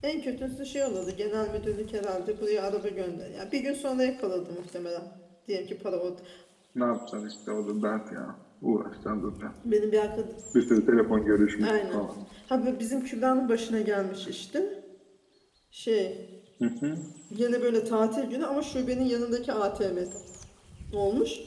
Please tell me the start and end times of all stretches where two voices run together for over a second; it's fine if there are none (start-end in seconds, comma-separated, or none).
none